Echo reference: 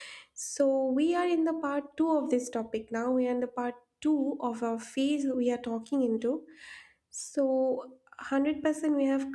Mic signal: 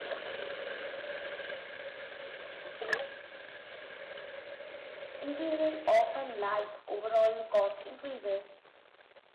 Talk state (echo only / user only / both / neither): user only